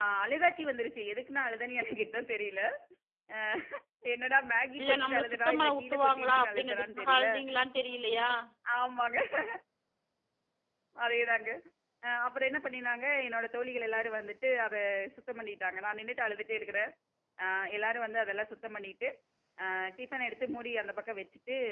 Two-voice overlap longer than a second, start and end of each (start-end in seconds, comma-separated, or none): 4.8-7.3